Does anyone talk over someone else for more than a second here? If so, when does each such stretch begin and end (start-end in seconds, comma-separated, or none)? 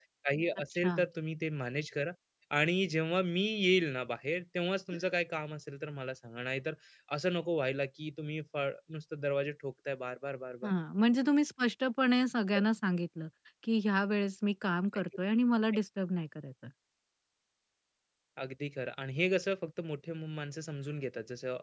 none